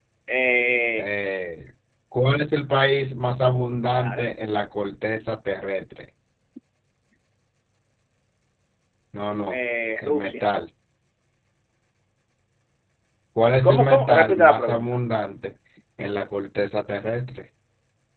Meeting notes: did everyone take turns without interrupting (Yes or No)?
No